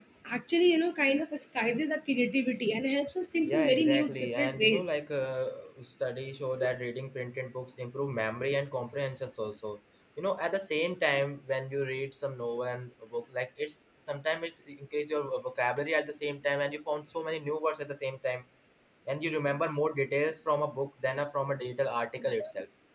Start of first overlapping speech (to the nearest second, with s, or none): 3 s